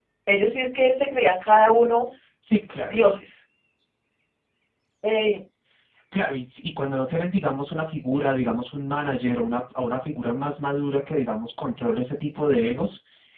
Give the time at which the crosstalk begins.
none

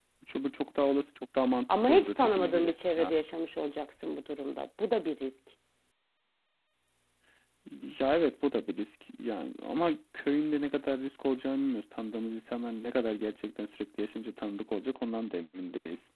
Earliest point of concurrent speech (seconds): 2 s

